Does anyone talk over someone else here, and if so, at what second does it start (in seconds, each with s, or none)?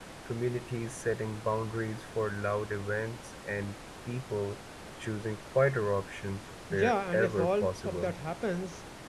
6.7 s